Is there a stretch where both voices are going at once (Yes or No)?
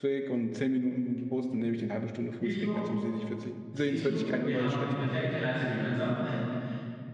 Yes